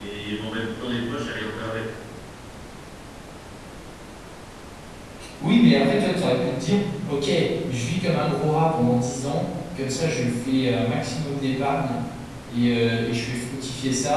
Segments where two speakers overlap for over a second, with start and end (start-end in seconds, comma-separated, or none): none